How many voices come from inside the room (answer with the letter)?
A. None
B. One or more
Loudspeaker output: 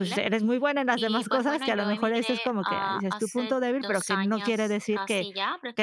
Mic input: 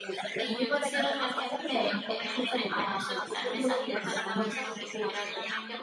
B